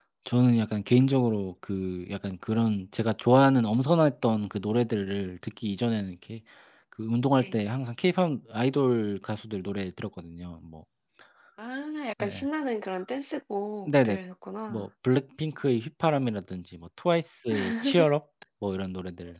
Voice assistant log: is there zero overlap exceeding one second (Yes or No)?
Yes